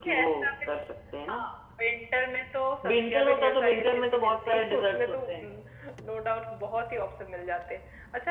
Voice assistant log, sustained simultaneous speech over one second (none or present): present